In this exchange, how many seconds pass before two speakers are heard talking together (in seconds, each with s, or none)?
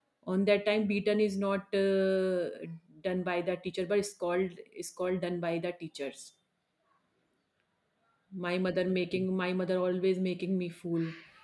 none